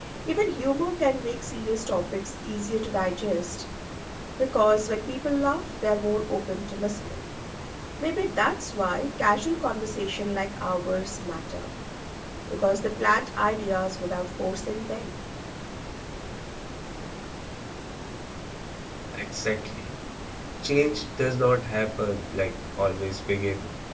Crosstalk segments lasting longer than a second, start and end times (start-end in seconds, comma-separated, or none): none